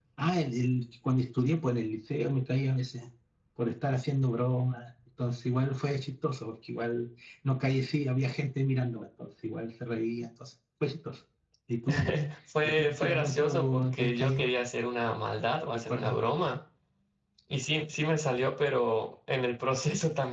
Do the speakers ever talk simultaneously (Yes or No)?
Yes